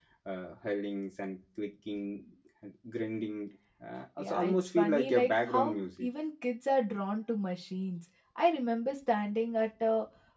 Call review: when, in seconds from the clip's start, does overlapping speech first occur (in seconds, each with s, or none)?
4.2 s